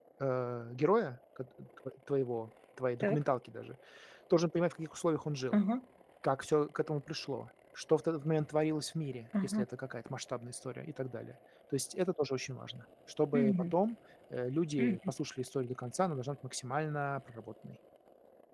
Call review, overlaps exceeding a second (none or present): none